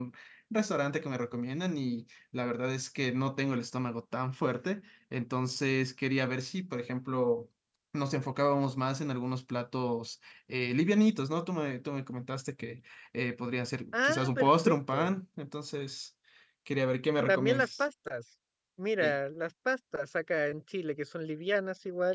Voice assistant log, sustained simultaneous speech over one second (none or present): present